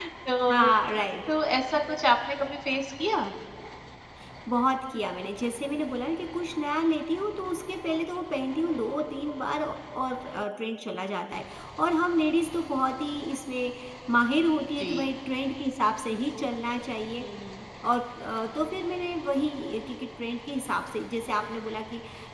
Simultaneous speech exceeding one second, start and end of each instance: none

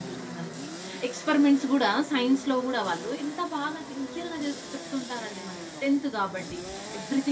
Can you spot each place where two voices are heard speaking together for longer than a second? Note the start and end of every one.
none

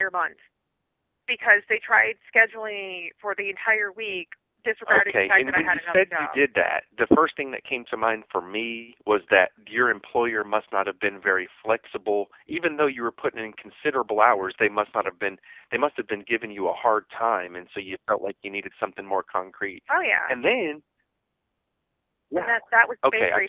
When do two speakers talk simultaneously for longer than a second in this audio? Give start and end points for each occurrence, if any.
4.9-6.4

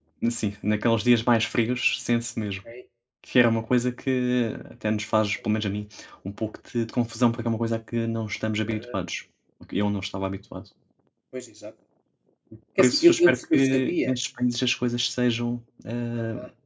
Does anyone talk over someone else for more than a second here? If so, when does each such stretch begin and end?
12.8-14.1

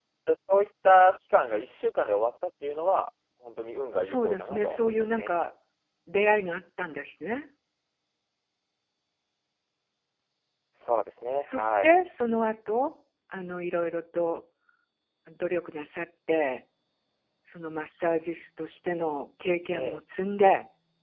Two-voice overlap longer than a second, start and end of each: 4.0-5.3

